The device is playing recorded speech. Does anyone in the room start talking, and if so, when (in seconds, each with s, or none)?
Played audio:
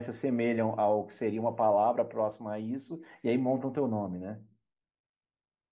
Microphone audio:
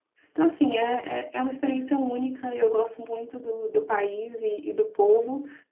0.3 s